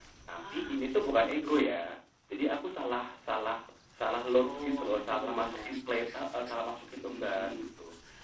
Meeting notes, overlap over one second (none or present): present